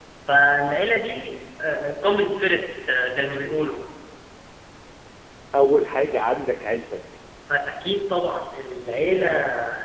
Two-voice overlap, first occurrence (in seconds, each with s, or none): none